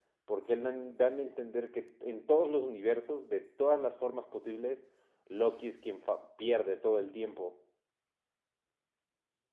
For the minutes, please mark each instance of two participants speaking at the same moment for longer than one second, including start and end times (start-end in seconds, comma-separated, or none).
none